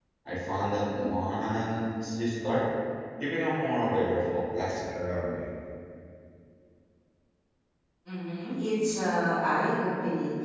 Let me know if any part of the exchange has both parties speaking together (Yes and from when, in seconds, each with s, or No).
No